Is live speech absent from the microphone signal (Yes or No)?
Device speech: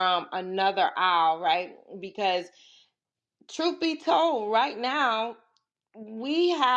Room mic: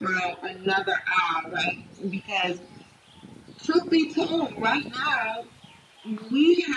Yes